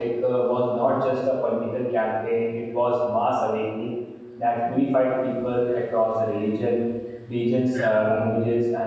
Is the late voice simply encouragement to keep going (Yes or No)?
Yes